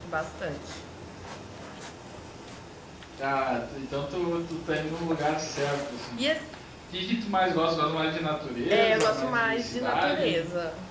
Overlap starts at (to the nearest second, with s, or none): 9 s